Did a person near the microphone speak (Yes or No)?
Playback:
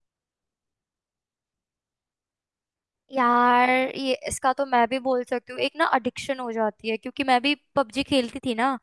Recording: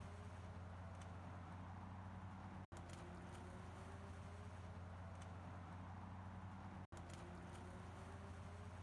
No